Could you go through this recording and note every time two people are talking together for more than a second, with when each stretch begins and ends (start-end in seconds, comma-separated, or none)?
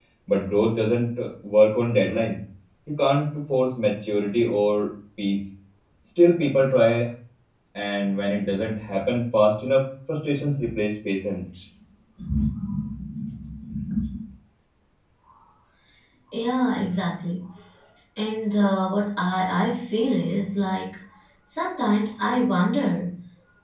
none